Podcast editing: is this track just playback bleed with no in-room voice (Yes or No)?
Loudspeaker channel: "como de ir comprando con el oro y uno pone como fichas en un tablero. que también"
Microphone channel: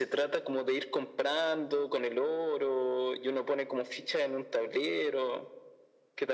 Yes